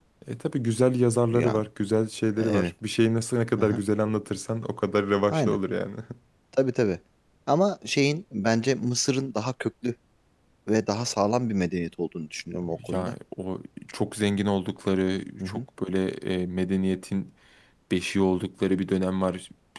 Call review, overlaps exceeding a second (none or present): none